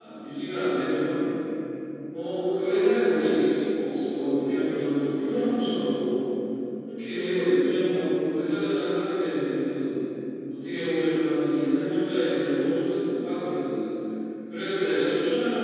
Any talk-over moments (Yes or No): No